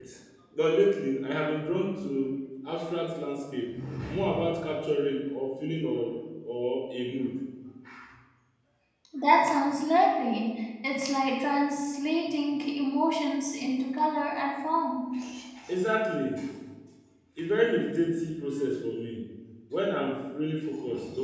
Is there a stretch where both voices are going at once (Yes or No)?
No